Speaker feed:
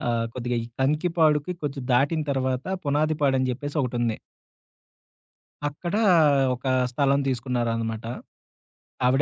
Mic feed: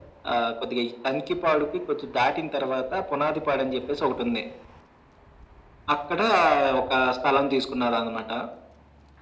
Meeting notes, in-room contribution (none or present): none